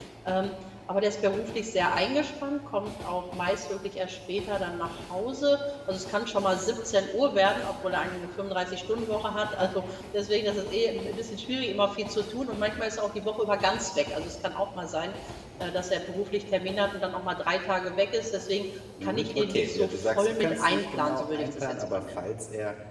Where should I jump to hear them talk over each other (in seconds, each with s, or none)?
19.0 s